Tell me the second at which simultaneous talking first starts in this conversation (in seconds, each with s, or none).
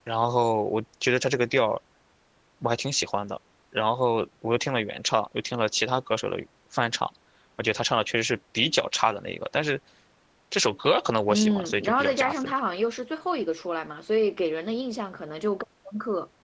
11.3 s